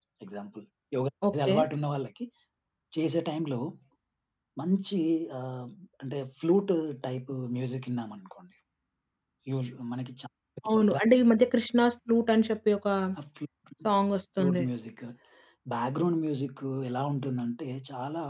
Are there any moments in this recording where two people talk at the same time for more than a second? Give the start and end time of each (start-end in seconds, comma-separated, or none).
none